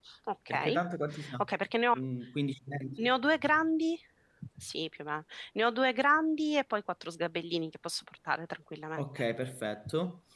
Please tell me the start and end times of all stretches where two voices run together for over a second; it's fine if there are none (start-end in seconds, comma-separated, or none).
none